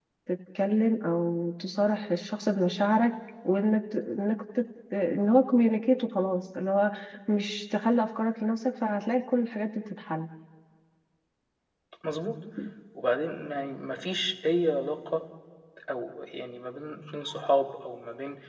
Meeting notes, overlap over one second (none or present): none